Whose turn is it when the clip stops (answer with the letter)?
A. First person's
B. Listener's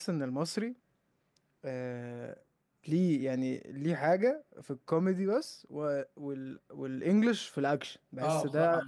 B